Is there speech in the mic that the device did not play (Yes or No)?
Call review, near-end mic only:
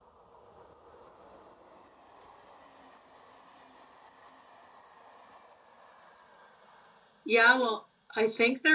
Yes